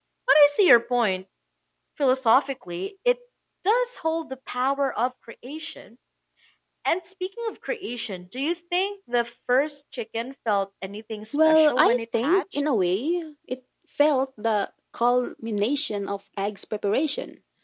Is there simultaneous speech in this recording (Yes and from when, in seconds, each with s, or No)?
Yes, from 11.3 s